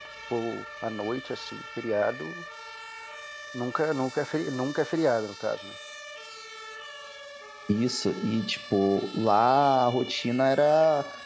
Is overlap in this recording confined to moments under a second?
Yes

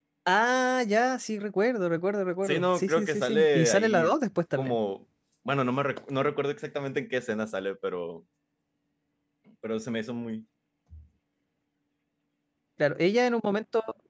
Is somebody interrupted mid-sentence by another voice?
Yes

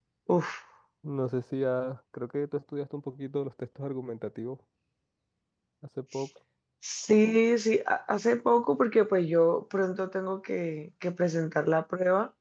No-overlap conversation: Yes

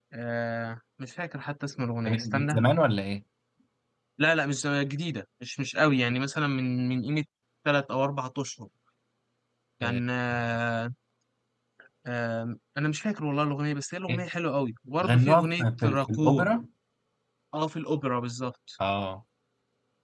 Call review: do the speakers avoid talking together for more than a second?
No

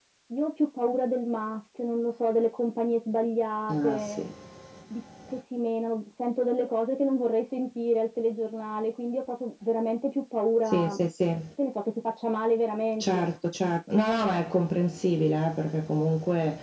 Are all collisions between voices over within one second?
Yes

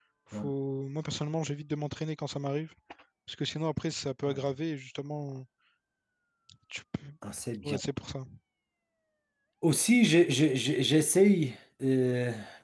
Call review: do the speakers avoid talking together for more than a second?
Yes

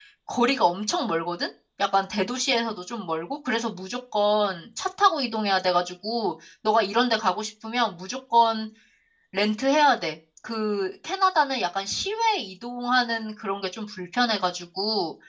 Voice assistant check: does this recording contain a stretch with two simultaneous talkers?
No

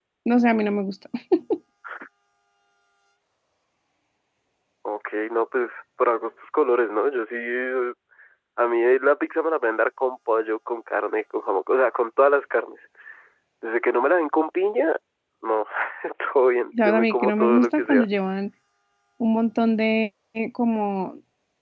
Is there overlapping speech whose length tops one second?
Yes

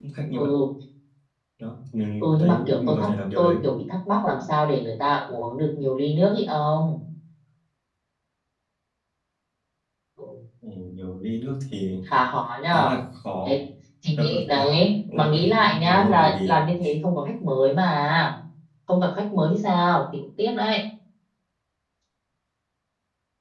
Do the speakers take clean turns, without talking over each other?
No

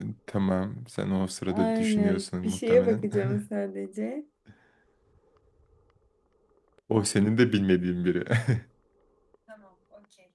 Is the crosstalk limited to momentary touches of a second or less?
No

